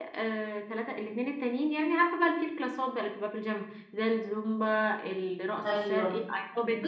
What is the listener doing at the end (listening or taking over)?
taking over